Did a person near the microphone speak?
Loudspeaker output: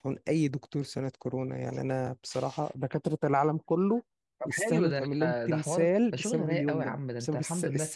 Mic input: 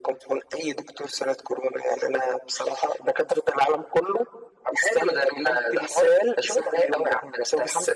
No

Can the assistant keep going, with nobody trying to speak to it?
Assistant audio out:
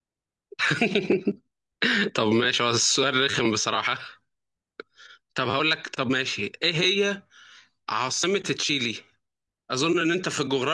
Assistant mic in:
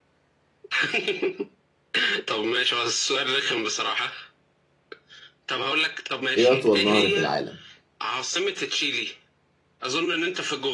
No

